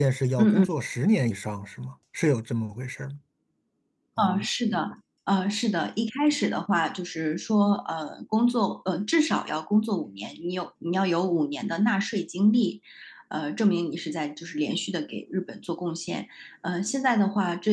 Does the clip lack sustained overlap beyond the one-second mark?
Yes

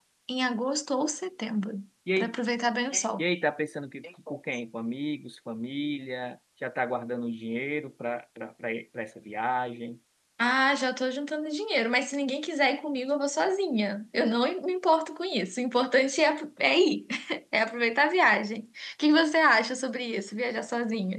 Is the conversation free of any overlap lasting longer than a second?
Yes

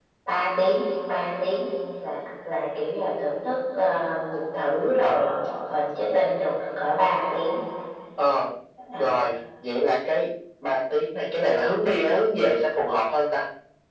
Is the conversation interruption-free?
Yes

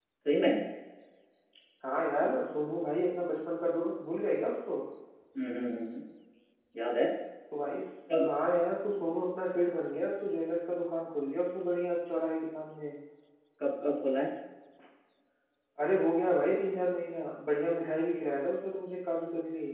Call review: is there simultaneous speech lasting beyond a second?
No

